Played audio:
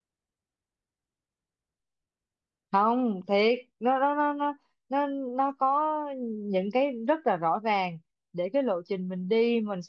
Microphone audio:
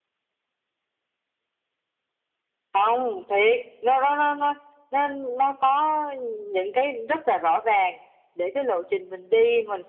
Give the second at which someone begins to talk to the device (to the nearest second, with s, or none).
none